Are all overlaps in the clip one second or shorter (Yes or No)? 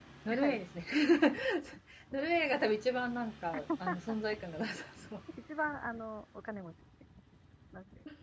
Yes